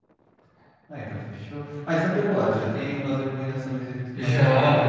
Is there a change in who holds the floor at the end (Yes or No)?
Yes